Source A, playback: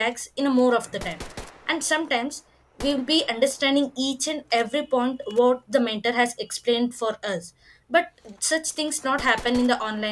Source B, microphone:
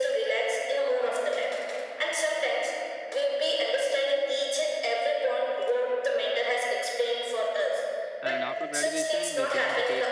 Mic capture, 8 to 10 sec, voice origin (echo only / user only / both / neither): both